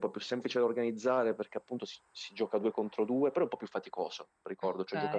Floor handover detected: No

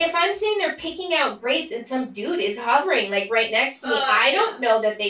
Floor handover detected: No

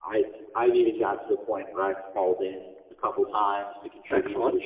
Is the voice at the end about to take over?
No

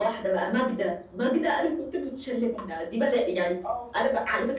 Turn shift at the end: No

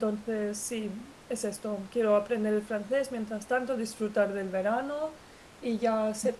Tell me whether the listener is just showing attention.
Yes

